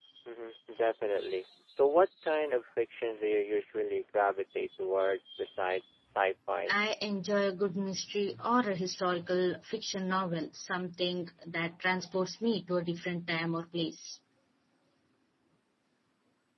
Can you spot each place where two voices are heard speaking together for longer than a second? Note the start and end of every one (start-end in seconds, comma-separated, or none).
none